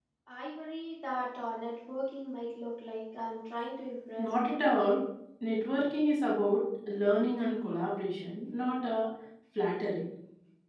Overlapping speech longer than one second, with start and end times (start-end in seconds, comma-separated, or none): none